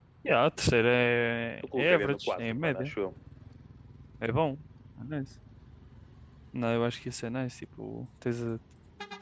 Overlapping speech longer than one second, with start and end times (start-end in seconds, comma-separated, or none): 1.6-2.9